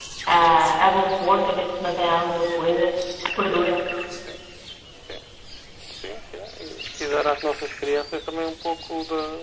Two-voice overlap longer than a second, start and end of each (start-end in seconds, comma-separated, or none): none